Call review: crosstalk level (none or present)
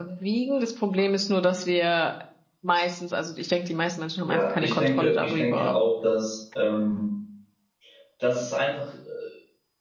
present